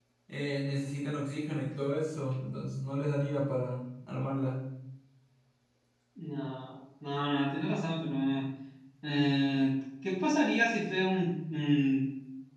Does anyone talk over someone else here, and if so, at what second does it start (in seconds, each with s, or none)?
none